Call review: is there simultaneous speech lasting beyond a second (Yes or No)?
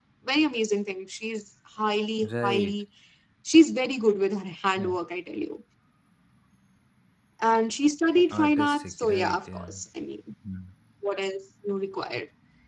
Yes